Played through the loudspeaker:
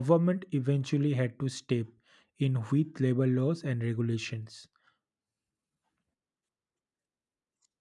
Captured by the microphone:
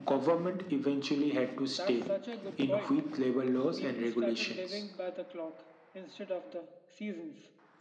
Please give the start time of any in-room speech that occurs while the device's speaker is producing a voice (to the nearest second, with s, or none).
2 s